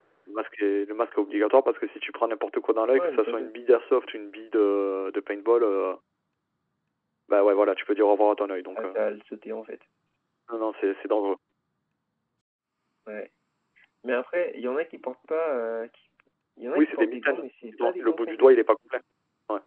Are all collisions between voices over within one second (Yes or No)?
No